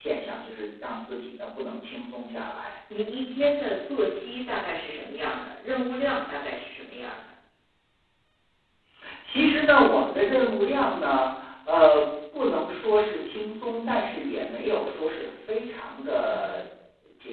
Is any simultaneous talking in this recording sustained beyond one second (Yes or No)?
No